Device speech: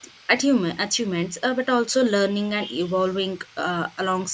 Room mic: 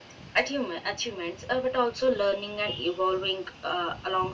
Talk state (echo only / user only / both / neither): echo only